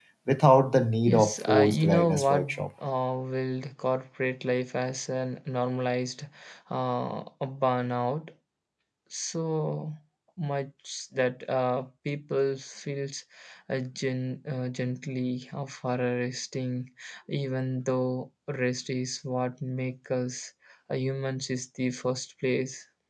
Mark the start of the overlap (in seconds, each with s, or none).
1.1 s